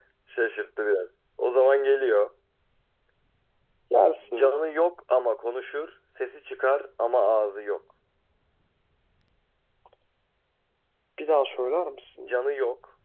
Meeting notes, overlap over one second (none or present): none